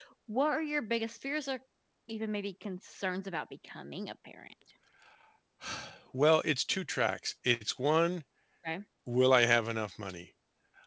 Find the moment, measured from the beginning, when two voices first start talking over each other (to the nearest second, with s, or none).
none